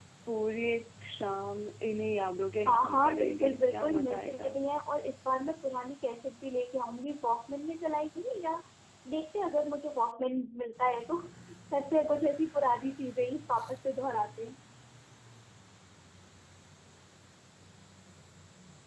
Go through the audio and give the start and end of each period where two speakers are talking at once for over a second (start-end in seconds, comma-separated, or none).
2.7-4.5